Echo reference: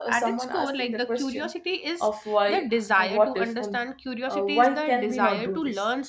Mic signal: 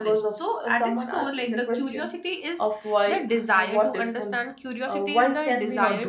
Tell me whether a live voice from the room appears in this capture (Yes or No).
No